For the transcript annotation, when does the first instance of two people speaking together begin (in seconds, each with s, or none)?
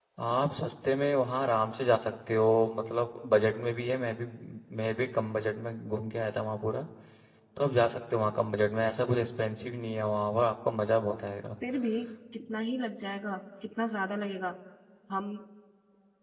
none